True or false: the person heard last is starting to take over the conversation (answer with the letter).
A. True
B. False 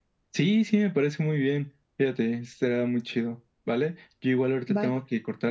B